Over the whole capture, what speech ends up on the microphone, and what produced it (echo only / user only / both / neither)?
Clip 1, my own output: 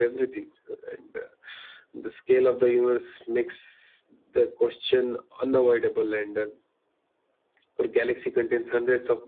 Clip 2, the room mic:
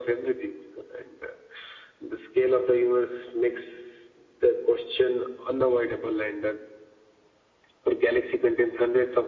echo only